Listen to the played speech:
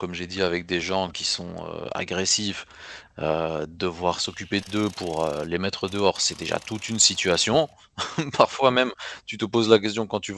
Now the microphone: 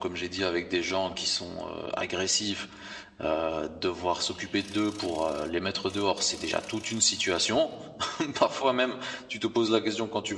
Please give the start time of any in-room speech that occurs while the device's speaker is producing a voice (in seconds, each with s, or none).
none